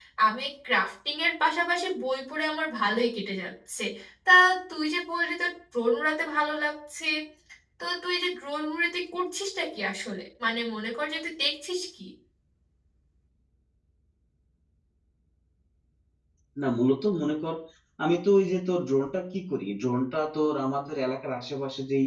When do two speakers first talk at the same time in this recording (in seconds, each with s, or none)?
none